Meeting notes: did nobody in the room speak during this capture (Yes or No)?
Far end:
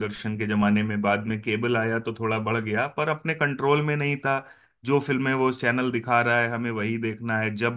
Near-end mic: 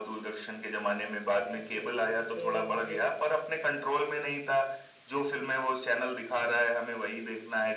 No